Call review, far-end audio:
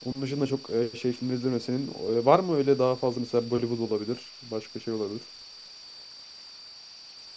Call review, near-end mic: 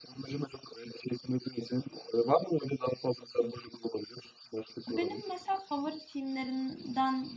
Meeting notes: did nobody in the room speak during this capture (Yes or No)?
No